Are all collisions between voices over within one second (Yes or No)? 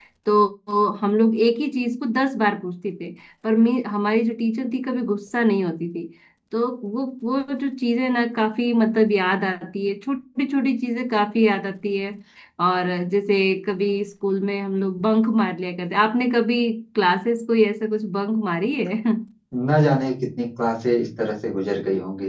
Yes